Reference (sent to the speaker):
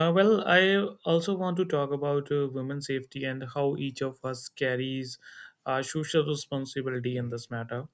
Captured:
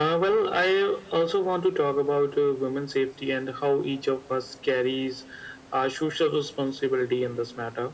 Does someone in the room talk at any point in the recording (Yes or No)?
No